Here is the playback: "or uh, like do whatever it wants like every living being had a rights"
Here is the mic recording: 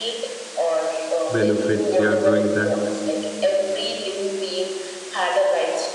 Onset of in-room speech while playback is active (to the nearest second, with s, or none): 1 s